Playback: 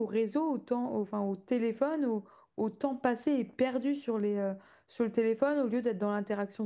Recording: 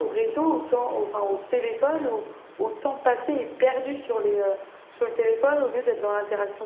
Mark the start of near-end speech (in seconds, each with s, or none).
none